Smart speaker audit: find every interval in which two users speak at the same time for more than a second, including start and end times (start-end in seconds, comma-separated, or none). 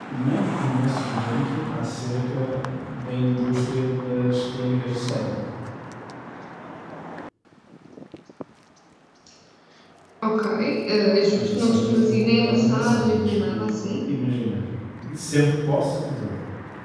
11.3-14.1